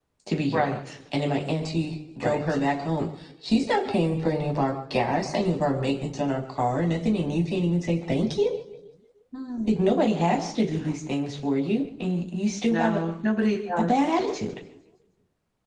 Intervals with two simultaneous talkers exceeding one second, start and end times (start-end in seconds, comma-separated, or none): none